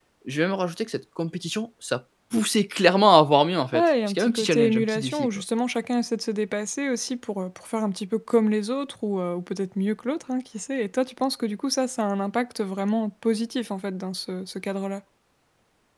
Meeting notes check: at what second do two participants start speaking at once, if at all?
3.7 s

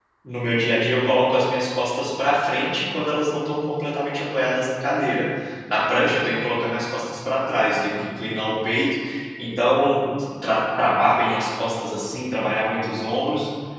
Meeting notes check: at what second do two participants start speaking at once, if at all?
none

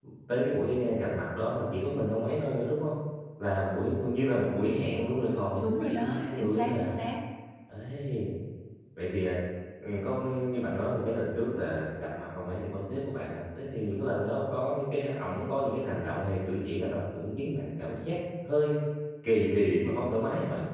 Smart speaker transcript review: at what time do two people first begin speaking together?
5.3 s

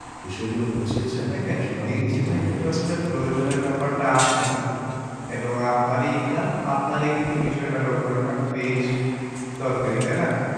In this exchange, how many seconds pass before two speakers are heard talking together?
1.3 s

